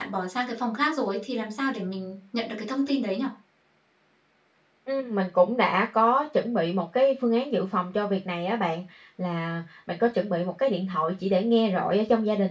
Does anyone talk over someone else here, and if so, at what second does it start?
none

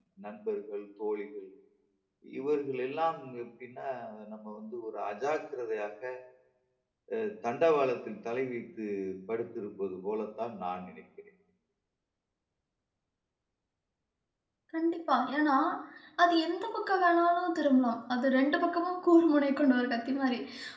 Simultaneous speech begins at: none

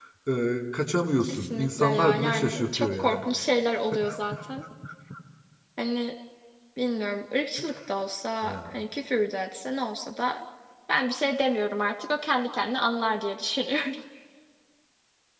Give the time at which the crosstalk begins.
1.3 s

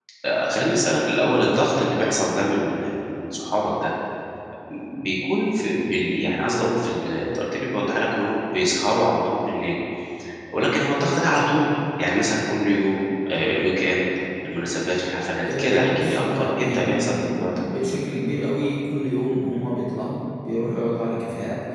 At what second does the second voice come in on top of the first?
15.4 s

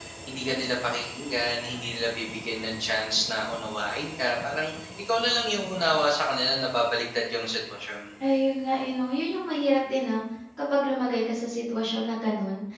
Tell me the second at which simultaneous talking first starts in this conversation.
none

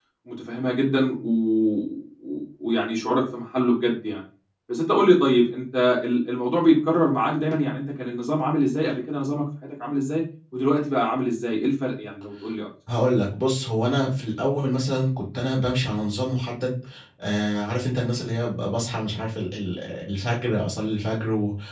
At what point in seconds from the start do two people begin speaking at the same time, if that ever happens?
none

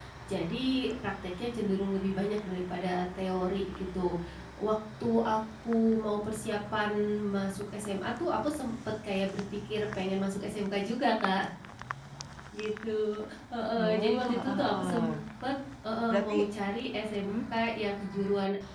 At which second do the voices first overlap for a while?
13.8 s

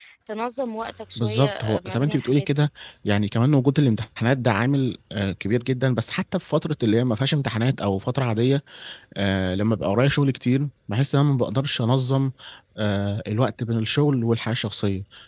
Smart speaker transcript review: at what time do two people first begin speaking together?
1.2 s

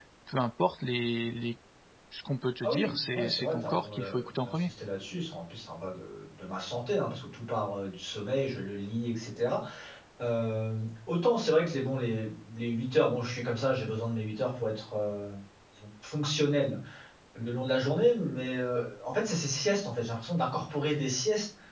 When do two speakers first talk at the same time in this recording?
2.6 s

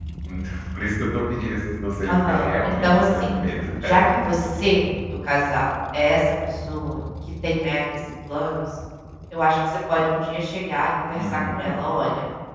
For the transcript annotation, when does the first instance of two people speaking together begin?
2.1 s

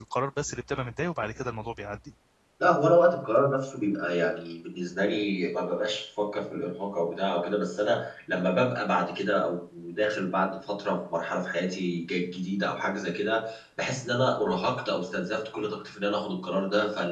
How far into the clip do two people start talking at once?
none

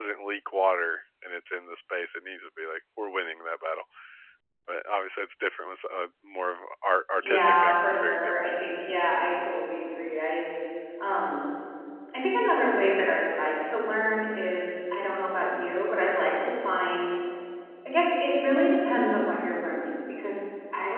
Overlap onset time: 7.2 s

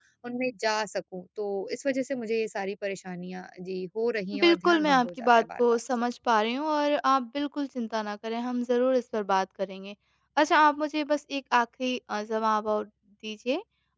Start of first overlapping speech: 4.3 s

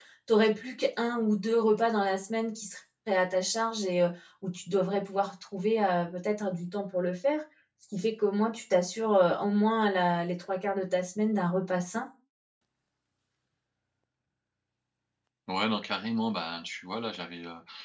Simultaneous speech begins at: none

